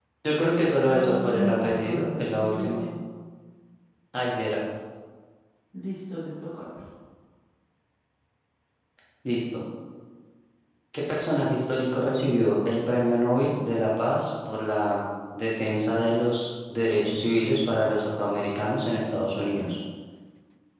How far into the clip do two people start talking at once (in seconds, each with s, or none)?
0.8 s